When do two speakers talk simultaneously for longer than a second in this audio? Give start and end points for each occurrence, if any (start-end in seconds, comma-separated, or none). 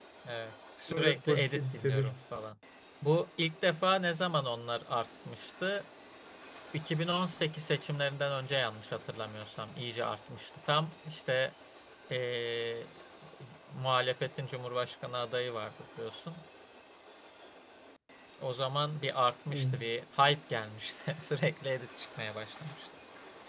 0.9-2.1